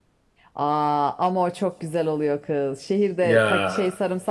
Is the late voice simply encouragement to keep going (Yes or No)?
Yes